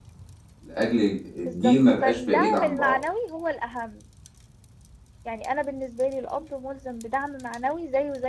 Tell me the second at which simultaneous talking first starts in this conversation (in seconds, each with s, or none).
1.4 s